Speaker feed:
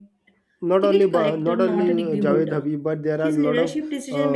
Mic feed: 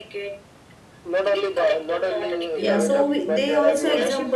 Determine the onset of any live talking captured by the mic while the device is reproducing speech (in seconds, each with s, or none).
2.6 s